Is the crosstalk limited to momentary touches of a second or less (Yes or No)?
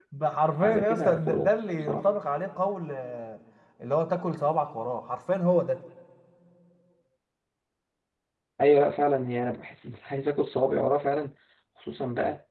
No